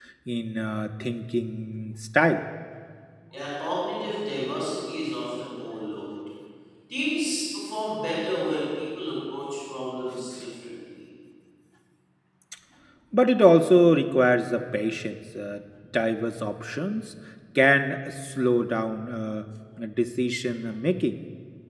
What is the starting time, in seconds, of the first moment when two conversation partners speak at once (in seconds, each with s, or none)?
none